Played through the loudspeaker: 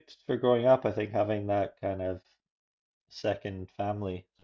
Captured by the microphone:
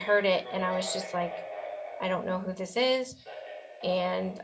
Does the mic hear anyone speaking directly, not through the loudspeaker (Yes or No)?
Yes